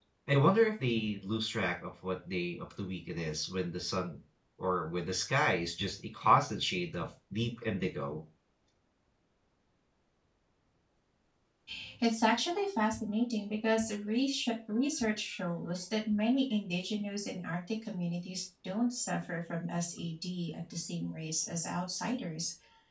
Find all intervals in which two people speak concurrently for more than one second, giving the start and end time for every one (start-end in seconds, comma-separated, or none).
none